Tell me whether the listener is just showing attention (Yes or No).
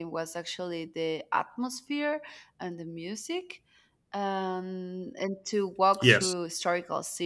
Yes